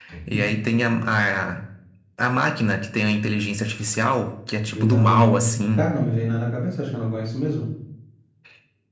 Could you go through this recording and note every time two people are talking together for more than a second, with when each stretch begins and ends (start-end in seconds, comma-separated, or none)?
4.7-5.9